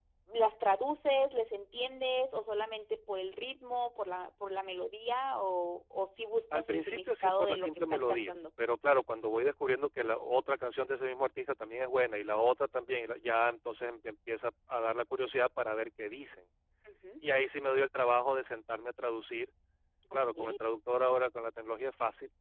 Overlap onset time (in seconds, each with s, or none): 6.5 s